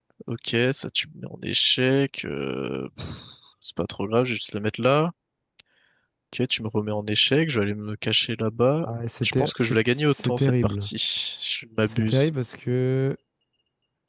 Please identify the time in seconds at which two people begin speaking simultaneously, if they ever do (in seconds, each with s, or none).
9.2 s